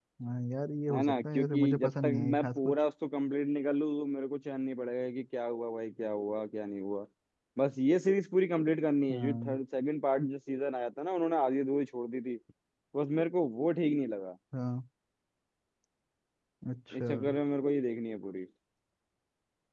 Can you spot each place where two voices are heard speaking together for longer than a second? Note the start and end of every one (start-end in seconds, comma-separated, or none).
0.9-2.7